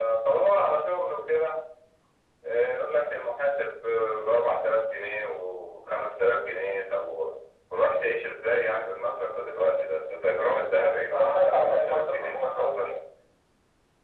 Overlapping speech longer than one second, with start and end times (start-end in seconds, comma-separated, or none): 11.1-12.9